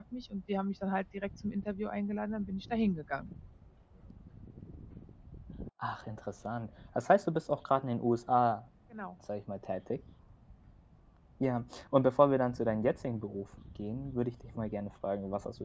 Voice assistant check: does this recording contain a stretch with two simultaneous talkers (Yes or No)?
No